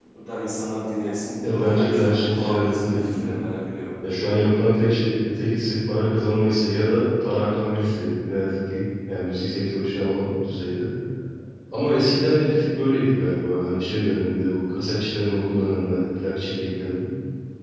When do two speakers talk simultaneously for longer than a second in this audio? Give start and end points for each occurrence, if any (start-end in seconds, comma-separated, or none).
1.4-3.3